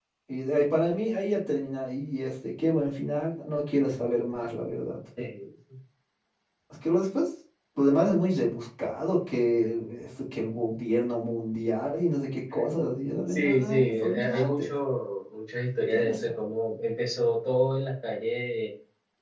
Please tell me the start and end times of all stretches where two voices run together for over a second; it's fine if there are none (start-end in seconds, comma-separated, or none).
13.3-14.7